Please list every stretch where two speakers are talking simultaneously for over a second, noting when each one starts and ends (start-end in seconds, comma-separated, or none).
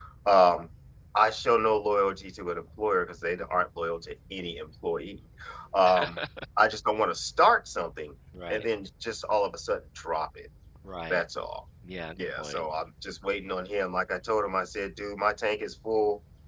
none